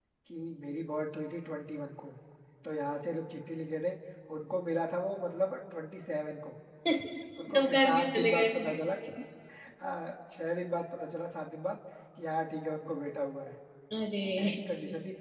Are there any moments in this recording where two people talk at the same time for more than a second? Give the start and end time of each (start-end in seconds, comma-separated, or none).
7.5-8.8